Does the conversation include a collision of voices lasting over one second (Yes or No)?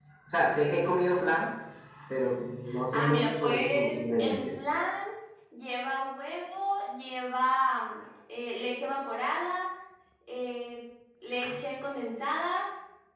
Yes